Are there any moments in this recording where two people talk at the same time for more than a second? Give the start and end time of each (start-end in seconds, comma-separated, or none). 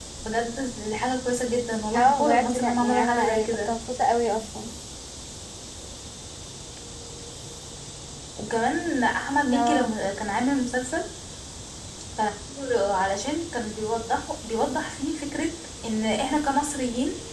1.9-3.7